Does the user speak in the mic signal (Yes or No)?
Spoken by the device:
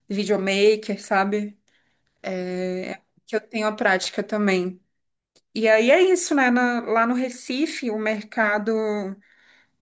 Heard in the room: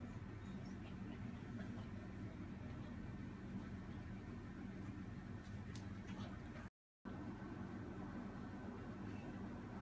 No